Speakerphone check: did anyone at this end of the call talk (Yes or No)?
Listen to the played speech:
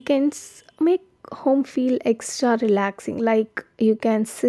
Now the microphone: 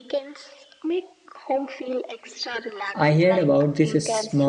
Yes